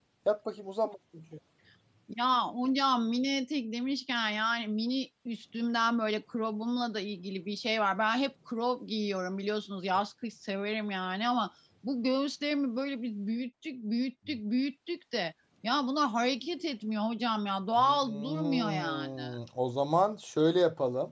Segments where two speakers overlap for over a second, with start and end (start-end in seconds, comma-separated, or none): 17.8-19.2